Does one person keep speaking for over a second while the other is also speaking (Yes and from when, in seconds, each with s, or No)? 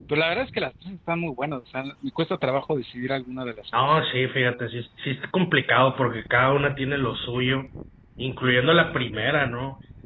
No